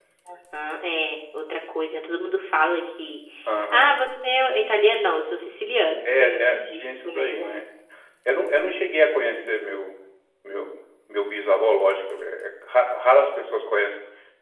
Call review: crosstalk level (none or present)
present